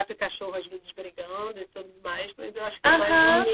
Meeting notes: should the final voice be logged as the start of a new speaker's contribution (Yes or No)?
Yes